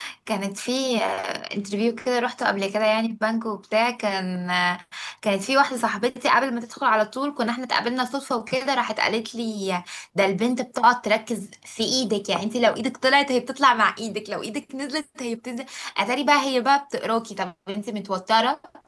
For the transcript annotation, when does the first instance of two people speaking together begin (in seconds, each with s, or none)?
none